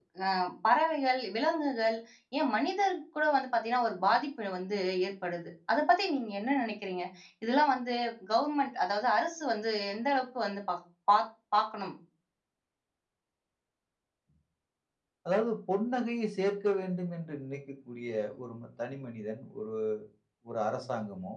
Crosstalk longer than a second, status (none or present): none